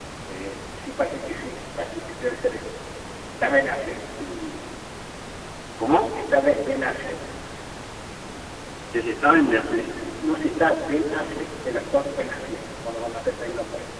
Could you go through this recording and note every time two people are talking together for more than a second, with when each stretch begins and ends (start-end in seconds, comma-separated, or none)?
none